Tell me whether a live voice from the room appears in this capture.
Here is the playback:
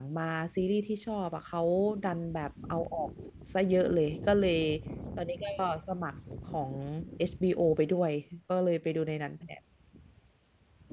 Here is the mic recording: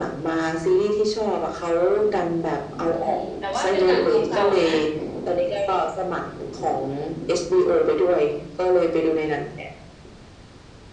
Yes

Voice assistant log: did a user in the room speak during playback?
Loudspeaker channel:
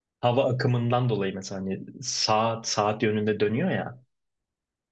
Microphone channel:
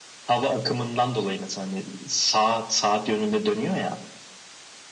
No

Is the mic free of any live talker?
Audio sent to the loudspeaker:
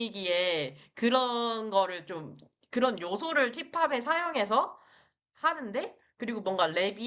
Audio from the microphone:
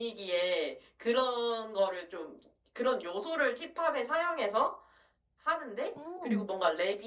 No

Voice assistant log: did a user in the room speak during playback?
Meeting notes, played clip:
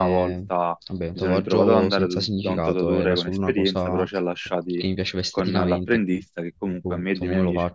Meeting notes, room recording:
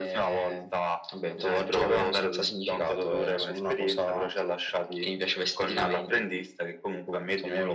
No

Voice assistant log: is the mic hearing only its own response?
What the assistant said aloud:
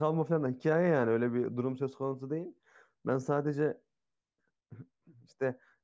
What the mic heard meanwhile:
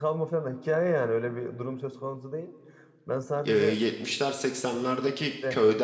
No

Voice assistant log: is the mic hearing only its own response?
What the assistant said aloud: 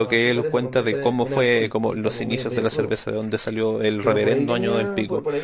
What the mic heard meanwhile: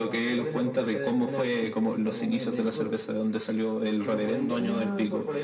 Yes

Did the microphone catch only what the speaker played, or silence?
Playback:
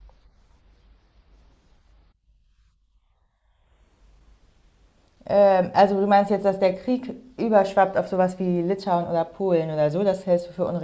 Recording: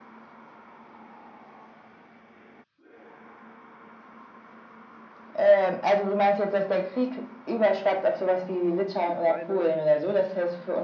No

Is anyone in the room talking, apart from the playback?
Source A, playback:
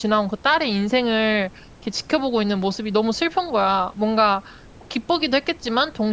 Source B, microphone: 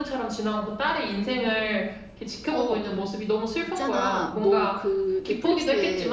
Yes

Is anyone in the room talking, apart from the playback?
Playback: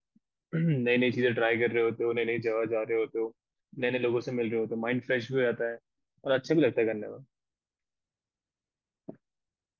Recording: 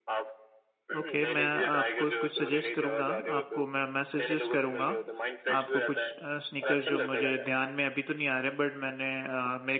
Yes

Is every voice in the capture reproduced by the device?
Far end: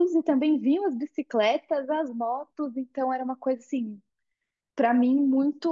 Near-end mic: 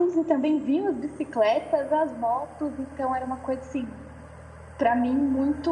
Yes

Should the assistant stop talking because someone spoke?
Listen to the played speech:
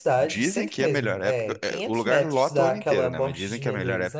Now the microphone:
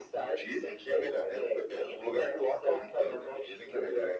No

